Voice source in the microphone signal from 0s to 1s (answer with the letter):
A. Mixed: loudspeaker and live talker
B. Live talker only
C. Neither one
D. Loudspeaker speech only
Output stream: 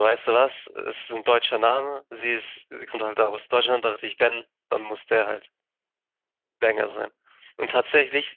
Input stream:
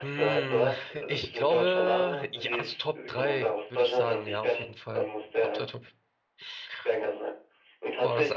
A